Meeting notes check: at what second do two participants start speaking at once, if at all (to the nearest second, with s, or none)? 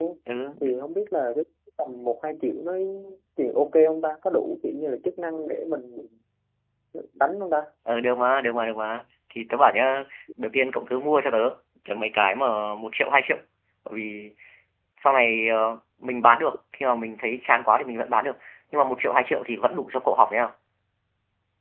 none